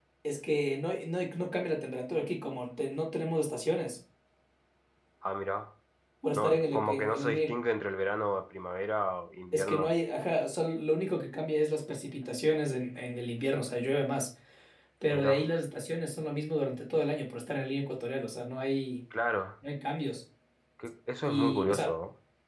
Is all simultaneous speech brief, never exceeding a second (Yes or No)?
No